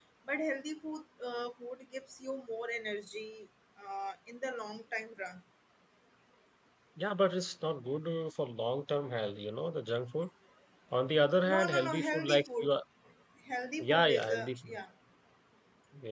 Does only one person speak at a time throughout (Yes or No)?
No